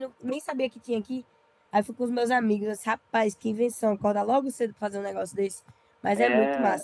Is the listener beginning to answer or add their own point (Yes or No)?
Yes